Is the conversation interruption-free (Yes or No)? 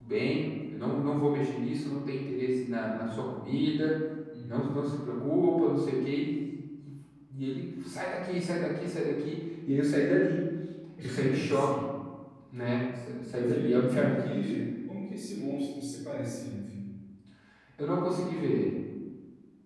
No